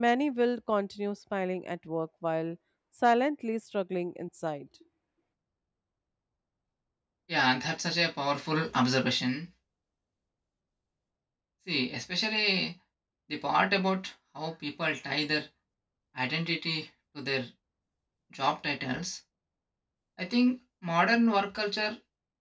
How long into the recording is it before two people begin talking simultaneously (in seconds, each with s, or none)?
none